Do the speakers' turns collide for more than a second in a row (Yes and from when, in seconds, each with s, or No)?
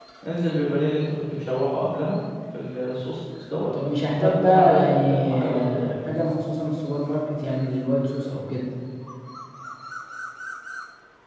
Yes, from 4.2 s